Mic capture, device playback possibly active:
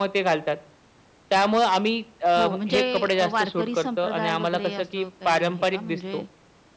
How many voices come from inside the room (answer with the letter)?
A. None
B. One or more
B